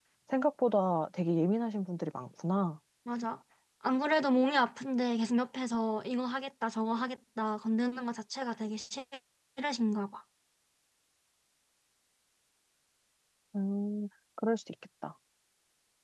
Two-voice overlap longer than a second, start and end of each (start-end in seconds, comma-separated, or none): none